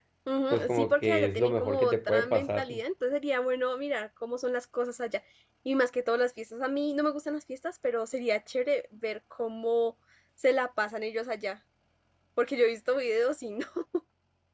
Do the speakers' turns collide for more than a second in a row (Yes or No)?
Yes